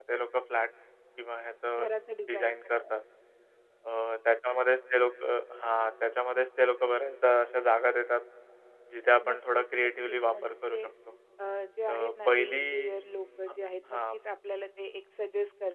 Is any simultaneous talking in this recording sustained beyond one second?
Yes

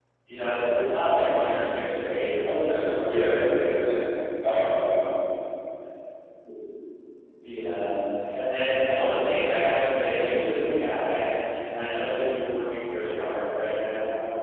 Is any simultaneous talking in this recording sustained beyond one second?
Yes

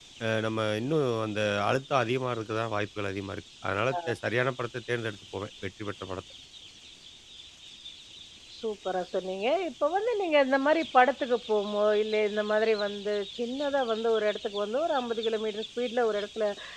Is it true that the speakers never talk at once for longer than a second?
Yes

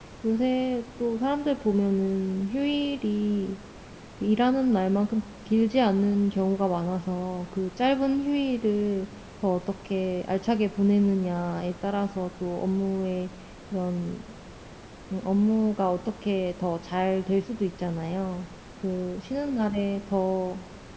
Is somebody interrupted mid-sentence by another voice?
No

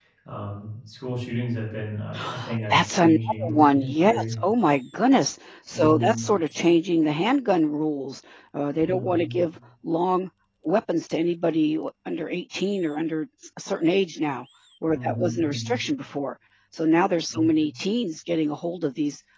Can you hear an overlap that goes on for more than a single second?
Yes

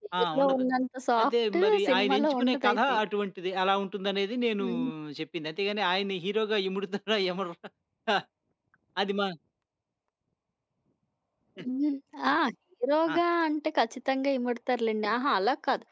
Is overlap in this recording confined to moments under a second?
No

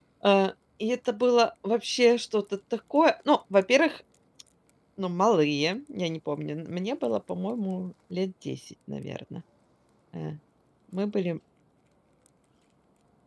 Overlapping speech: No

